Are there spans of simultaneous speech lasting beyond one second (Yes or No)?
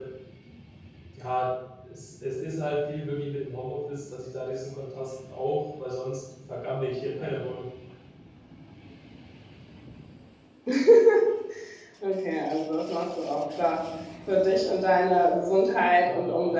No